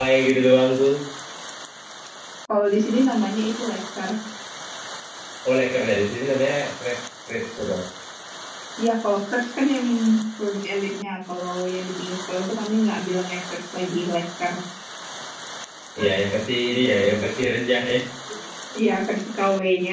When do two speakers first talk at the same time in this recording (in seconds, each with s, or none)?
none